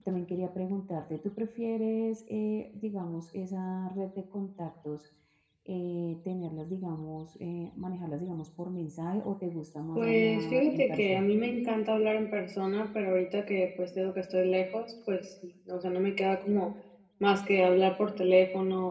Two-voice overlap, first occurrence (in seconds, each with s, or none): 9.9 s